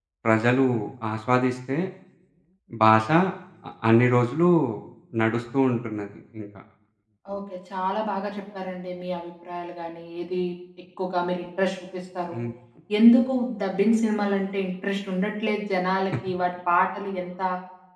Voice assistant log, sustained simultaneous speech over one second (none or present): none